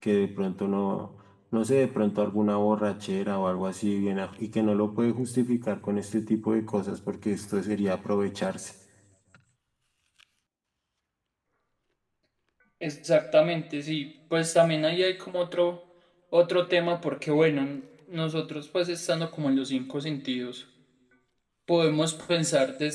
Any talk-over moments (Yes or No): No